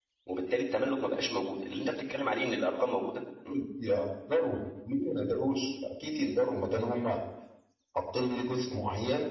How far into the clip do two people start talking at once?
none

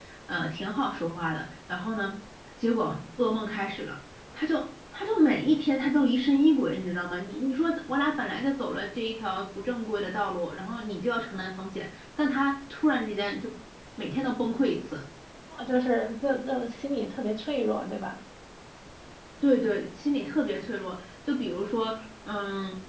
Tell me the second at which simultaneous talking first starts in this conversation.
none

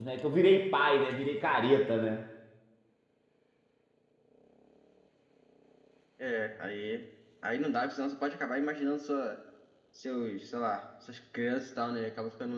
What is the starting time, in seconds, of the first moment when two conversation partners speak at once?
none

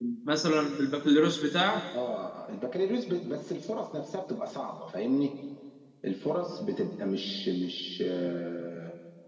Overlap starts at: none

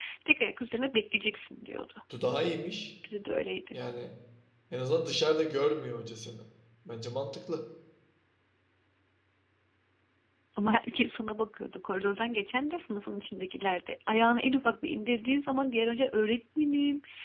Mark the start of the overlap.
none

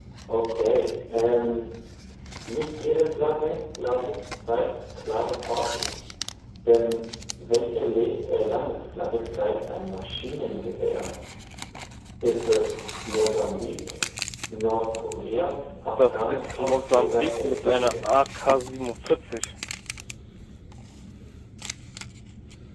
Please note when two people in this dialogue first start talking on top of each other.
16.0 s

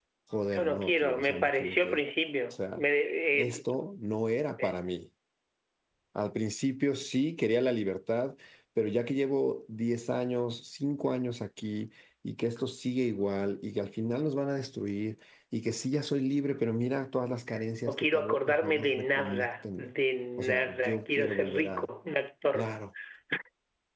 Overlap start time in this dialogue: 0.5 s

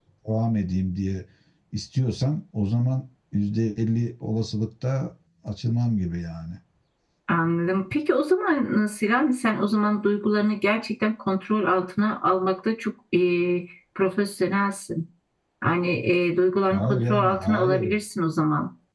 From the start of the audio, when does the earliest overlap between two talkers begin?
16.7 s

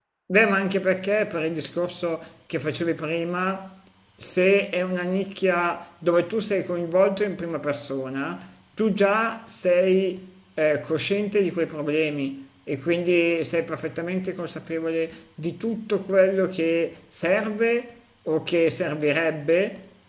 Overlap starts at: none

